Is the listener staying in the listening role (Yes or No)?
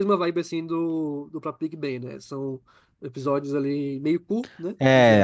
No